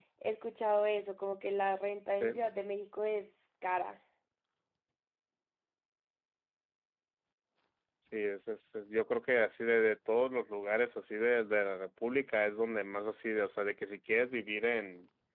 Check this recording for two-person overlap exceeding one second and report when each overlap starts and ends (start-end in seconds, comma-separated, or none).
none